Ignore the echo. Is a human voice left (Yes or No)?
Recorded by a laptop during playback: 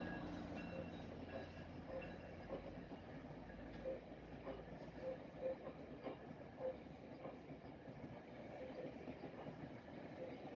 No